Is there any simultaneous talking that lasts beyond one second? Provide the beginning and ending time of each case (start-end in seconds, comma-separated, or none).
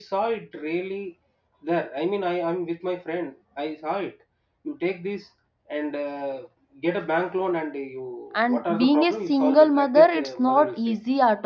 8.5-10.9